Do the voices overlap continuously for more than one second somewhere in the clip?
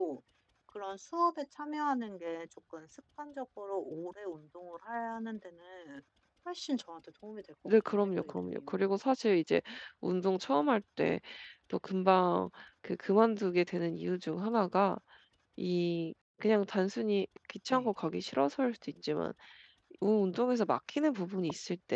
Yes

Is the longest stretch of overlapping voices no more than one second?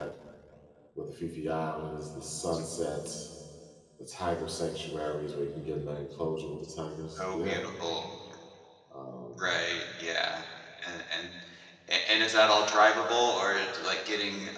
Yes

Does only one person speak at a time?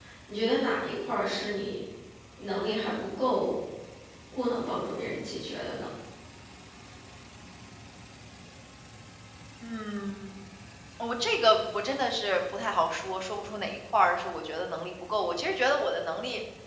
Yes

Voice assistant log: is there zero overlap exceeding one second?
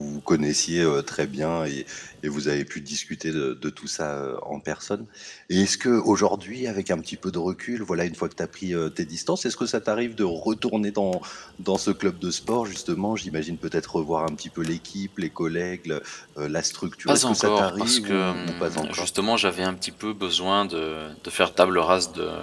No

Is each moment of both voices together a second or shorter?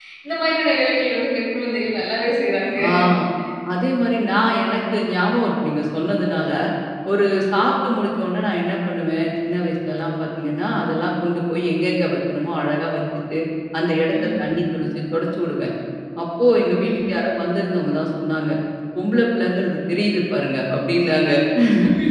Yes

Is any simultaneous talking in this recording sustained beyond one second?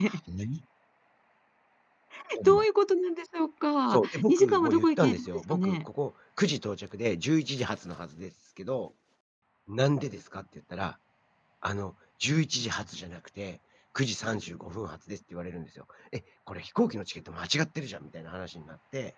Yes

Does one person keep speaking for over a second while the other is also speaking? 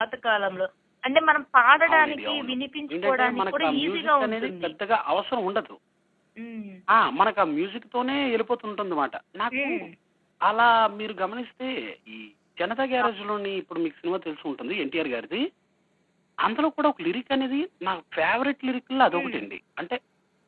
Yes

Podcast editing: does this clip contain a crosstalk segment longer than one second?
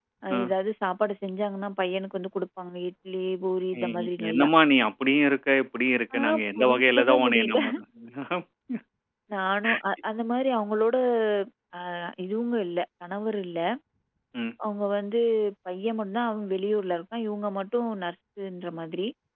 Yes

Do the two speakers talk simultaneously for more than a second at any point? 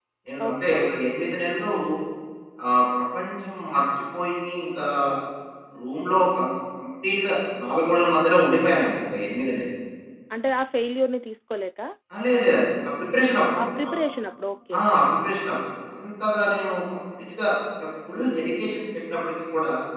No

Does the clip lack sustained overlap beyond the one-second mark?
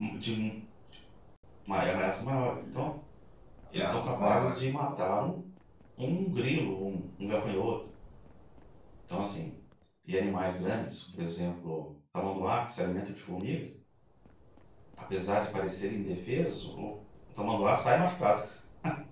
No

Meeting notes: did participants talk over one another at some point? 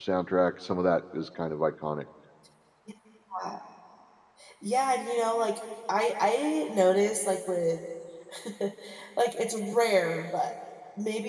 No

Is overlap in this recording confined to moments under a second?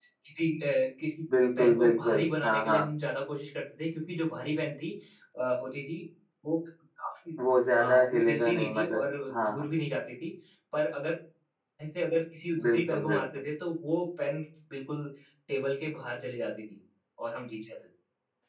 No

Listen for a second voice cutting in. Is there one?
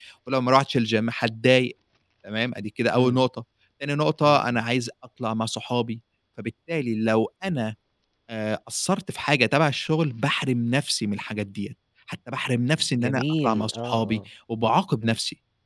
Yes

